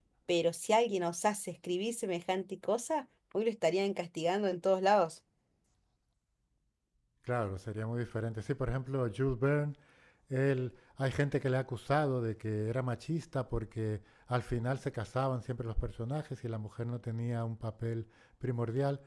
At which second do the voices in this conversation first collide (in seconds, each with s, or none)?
none